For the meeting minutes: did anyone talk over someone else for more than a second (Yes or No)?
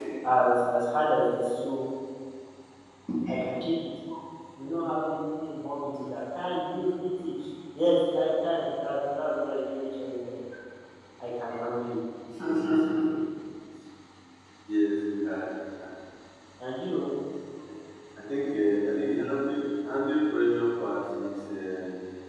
No